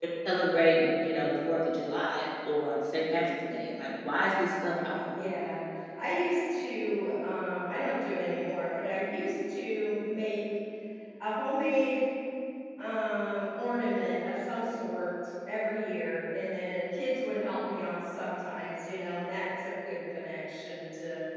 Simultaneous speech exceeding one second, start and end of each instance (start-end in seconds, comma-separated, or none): none